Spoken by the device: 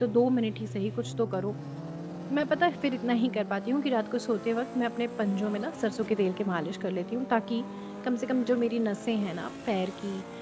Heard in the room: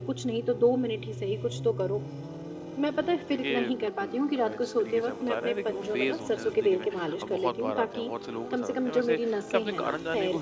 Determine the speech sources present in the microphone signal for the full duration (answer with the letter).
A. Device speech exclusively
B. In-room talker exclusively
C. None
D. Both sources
D